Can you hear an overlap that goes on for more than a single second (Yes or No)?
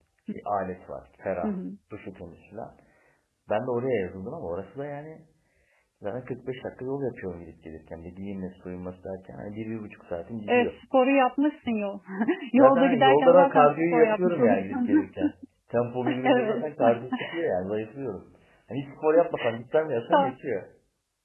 Yes